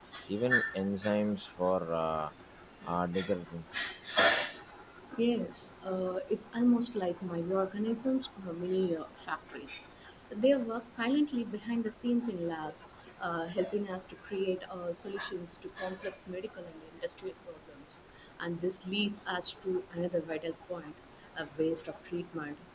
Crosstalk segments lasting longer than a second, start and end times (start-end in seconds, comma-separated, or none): none